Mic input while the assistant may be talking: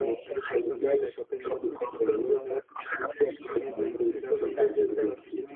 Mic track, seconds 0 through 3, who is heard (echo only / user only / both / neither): both